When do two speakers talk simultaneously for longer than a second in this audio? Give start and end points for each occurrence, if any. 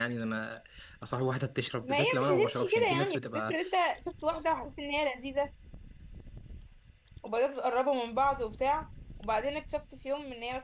1.8-3.6

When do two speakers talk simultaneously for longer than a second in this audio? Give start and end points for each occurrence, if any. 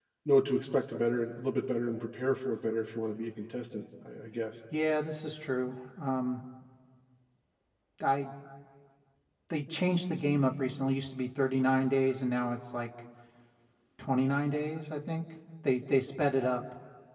none

